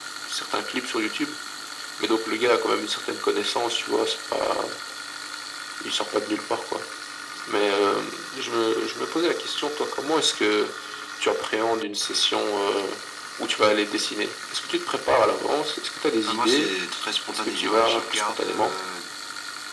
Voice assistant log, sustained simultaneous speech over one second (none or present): present